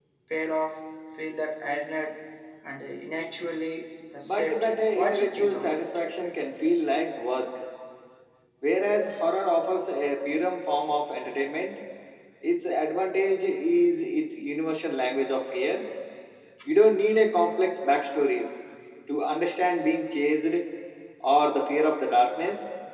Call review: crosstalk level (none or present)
present